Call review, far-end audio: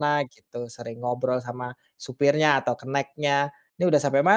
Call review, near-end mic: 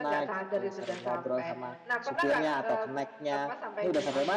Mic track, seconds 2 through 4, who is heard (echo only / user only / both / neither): both